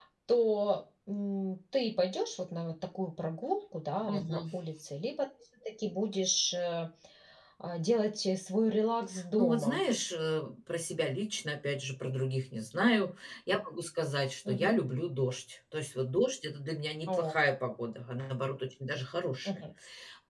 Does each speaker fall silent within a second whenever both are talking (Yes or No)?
Yes